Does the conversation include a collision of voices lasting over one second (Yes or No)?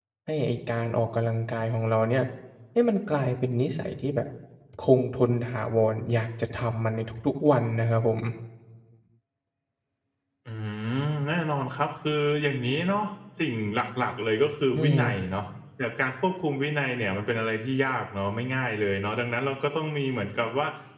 No